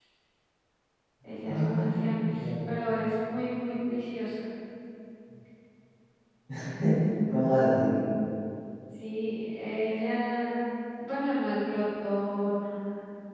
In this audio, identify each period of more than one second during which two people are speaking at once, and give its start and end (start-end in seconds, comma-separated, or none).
1.4-2.7